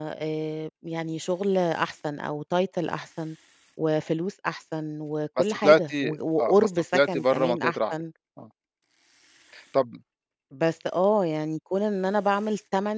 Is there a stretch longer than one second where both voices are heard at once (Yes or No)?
Yes